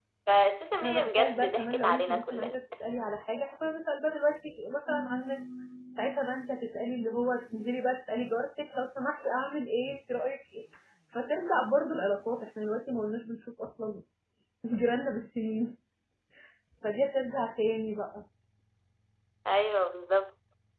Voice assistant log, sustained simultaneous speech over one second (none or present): present